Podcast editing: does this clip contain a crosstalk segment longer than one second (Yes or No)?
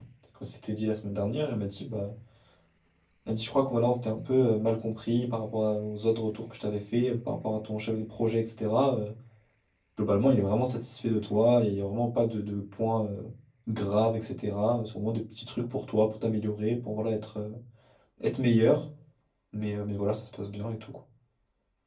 No